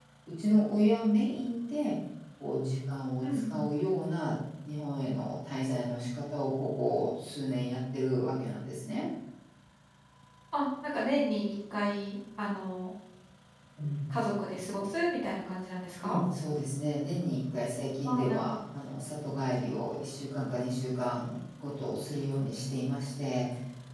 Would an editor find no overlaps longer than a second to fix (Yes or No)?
Yes